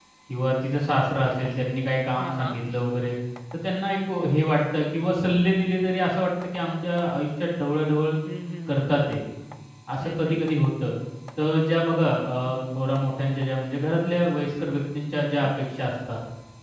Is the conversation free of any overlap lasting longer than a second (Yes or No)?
Yes